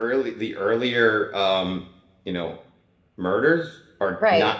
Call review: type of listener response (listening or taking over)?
listening